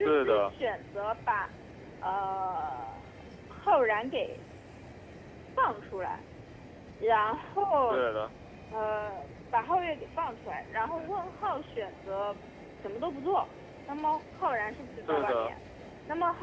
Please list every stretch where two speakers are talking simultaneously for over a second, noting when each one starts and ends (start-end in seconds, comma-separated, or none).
none